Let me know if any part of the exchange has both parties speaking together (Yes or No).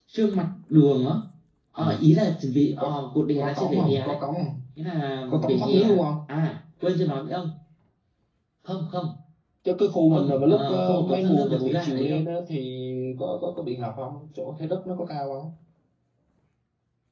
Yes